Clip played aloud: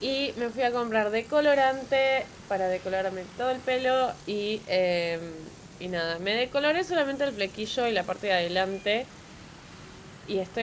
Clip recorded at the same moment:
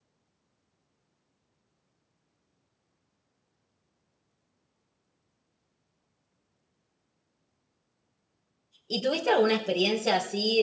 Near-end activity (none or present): present